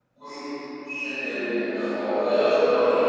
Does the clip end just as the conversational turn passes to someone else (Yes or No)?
No